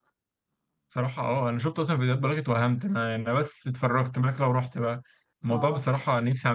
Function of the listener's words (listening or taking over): listening